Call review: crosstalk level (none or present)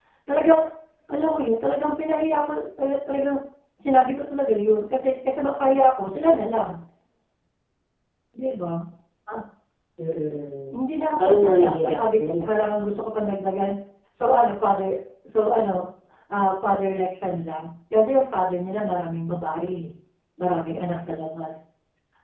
present